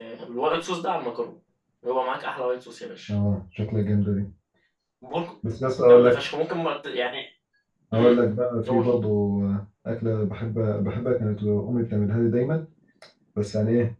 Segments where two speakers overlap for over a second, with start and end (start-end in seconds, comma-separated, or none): none